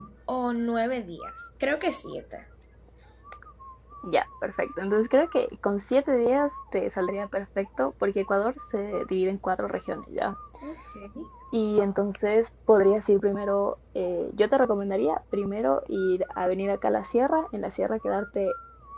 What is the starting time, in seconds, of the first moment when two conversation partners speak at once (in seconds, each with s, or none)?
none